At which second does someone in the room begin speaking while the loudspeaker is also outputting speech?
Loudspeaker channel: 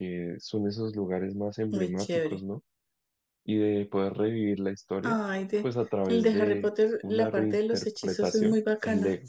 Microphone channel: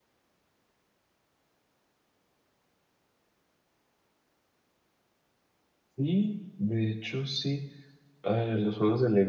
6 s

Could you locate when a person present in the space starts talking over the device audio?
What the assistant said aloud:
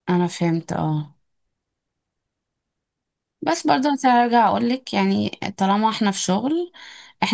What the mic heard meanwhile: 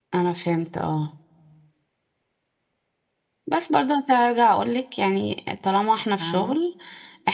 6 s

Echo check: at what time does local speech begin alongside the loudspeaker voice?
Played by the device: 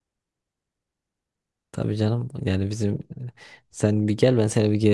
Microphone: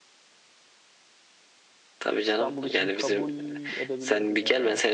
2 s

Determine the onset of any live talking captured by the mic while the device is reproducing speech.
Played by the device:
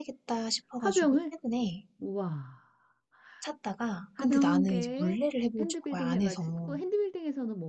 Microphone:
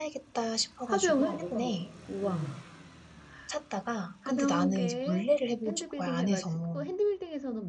1 s

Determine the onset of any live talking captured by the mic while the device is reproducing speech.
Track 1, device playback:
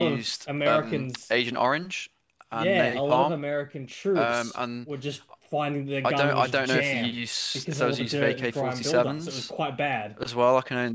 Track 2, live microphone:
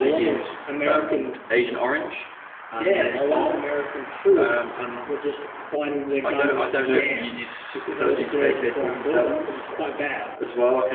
none

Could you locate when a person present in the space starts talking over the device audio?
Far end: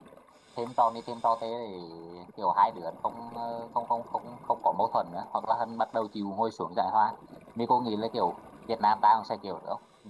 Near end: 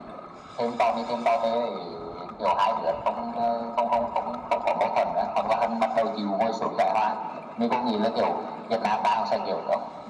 none

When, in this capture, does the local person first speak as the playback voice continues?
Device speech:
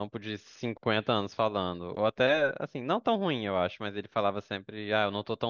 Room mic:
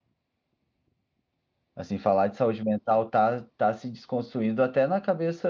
2 s

